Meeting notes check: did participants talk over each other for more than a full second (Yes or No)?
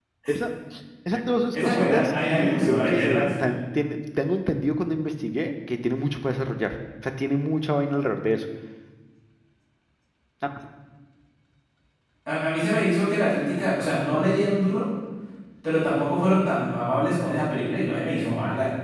Yes